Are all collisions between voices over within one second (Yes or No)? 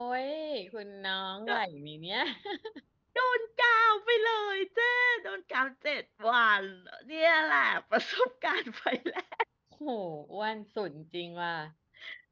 Yes